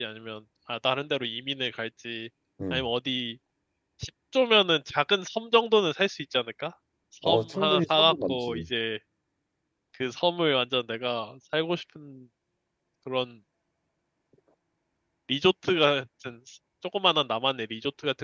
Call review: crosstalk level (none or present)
present